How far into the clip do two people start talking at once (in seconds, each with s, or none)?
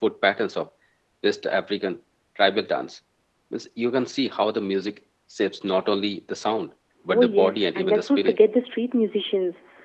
7.1 s